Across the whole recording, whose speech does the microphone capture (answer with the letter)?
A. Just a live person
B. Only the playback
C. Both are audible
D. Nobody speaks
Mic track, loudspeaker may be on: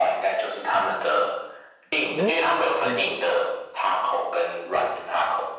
C